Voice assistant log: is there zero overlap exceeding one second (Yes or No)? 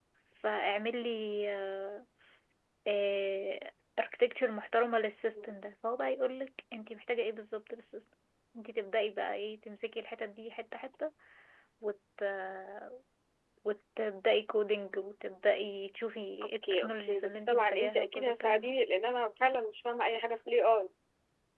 No